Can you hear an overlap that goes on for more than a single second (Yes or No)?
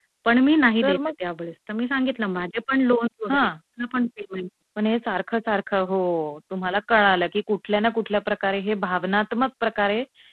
No